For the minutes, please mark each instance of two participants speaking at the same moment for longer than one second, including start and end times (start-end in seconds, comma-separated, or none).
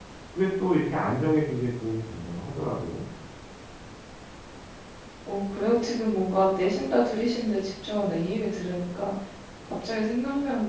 none